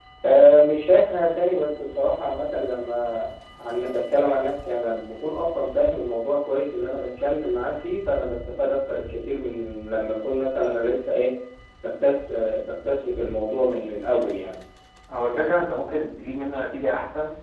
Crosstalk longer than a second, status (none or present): none